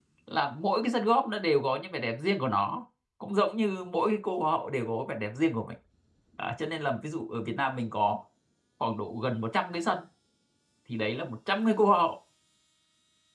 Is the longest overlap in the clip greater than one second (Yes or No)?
No